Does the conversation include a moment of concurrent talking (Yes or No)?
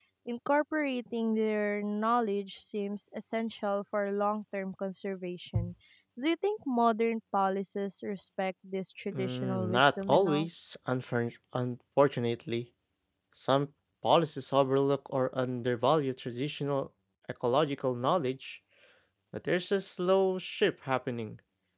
Yes